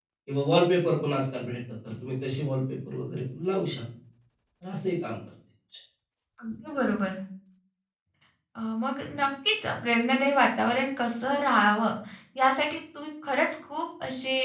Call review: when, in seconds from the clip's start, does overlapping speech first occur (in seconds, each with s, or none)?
none